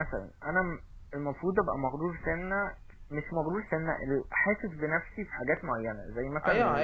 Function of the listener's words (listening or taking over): taking over